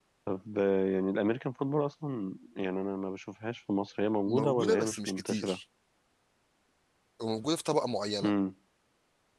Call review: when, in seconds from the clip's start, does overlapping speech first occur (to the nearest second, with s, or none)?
4 s